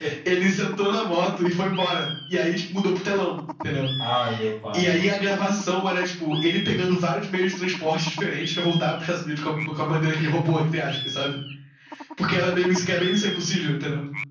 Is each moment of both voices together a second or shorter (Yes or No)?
Yes